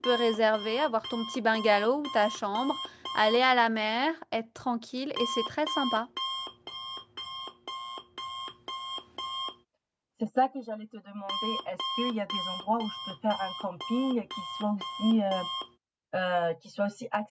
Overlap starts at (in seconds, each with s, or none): none